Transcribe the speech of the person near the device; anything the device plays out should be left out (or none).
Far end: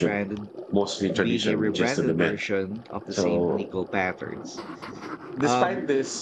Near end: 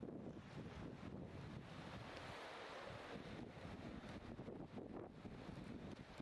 none